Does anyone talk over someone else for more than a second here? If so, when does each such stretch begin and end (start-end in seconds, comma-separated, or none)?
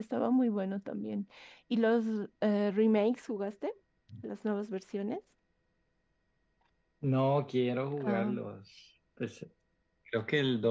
none